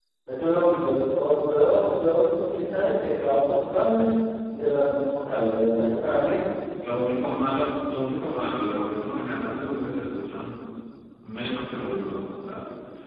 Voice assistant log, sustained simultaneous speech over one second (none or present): none